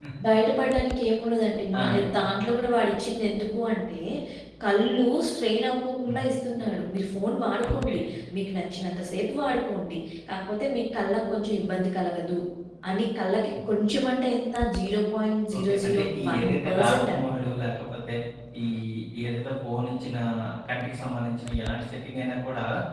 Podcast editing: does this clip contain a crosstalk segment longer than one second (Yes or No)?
Yes